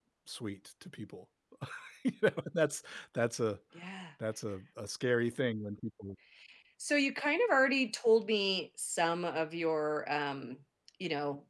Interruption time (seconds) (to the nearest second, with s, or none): none